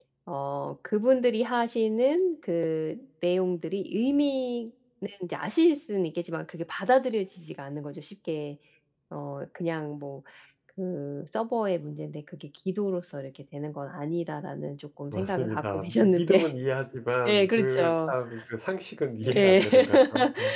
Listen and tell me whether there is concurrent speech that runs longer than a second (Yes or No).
Yes